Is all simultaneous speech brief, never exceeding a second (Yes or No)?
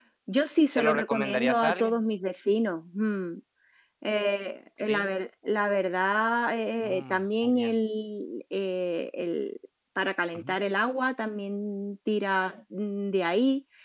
No